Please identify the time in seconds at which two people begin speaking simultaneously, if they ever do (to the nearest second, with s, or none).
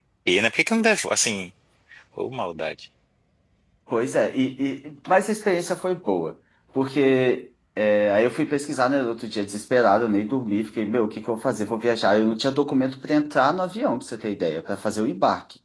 none